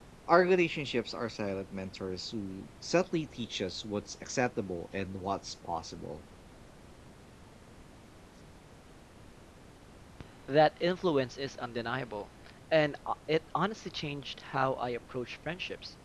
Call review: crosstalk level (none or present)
none